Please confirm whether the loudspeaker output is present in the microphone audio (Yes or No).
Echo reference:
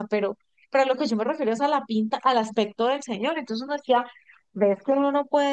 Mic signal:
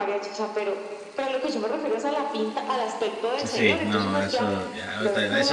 Yes